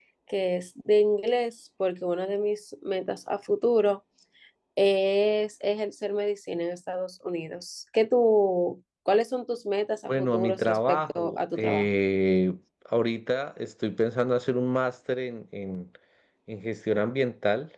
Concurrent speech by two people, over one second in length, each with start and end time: 10.0-11.9

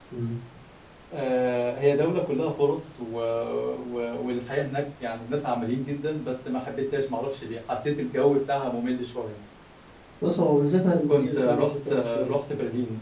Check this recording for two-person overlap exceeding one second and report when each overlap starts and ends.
11.1-12.3

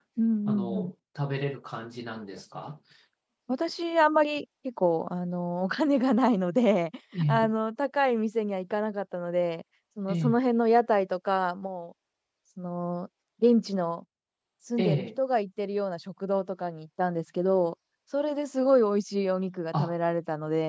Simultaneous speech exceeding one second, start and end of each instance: none

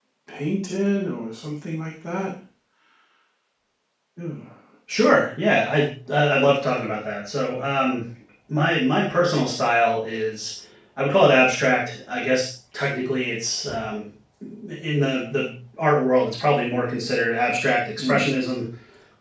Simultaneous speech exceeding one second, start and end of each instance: none

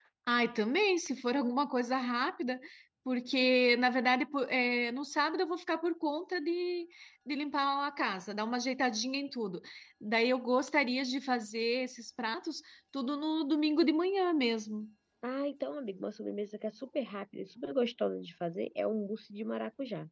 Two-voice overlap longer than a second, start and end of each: none

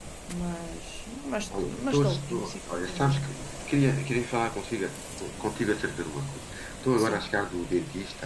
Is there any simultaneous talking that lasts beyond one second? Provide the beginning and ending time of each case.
1.6-3.3

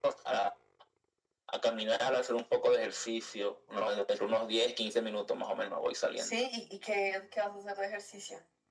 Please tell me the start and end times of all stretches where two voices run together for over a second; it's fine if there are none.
none

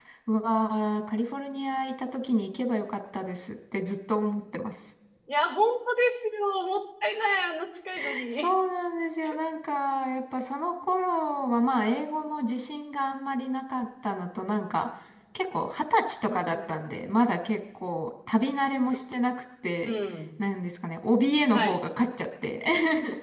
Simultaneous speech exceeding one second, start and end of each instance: none

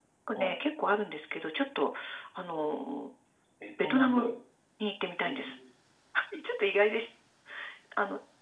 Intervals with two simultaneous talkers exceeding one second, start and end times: none

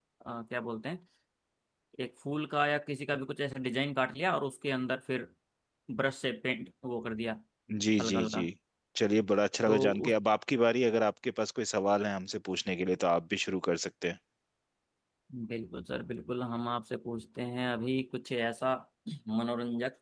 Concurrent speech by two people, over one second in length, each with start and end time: none

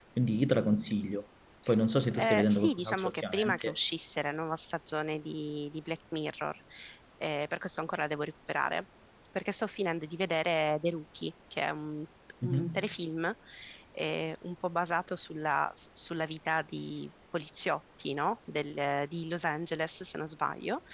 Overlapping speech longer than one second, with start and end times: 2.1-3.8

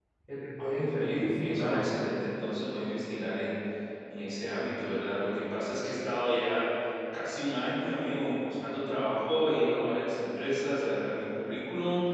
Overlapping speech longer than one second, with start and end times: 0.6-1.9

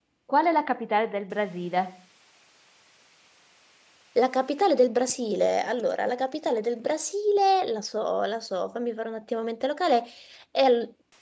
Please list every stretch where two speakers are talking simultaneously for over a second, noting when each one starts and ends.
none

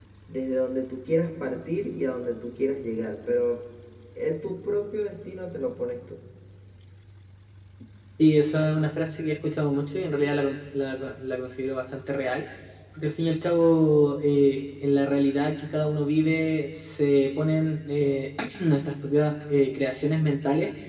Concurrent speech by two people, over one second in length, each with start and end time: none

